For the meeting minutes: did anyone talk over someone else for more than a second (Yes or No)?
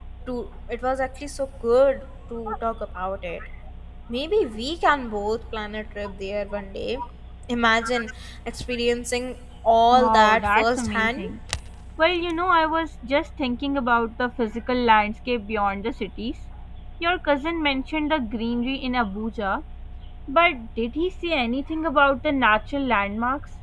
Yes